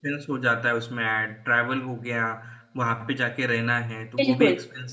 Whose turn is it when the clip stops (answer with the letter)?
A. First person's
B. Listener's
A